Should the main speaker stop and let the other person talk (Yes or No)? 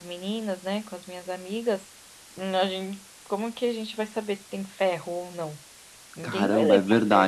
Yes